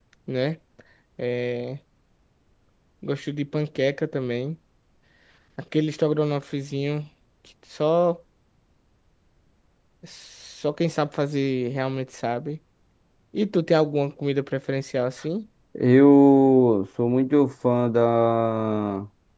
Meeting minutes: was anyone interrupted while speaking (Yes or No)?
No